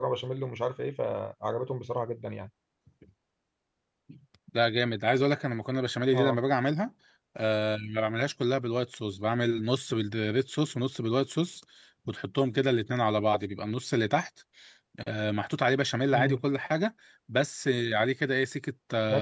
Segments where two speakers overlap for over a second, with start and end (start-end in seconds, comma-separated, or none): none